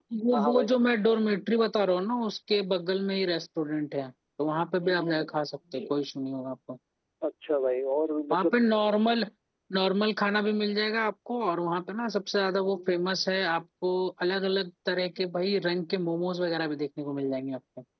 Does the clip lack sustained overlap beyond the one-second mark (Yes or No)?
Yes